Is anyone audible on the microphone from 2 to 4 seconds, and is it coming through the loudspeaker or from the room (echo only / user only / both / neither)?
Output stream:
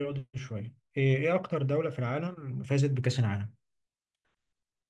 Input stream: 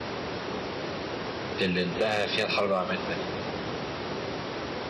user only